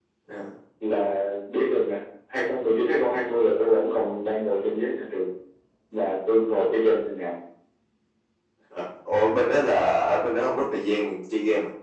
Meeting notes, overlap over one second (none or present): none